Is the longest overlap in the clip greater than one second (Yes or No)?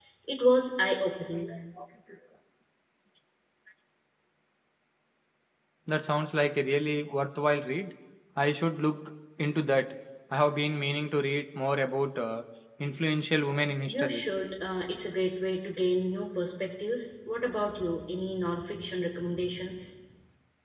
No